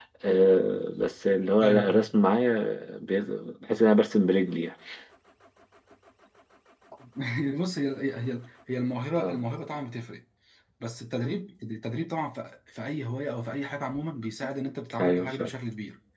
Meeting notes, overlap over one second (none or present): none